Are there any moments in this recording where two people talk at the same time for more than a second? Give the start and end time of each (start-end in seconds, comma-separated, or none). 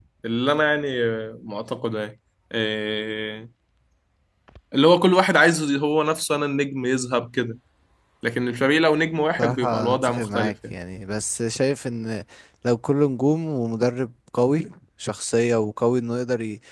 9.4-10.7